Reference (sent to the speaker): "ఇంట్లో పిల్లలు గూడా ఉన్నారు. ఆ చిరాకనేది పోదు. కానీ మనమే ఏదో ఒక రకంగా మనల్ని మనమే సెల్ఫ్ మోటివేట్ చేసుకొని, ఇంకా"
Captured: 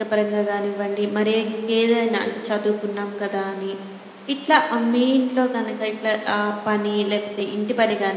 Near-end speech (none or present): present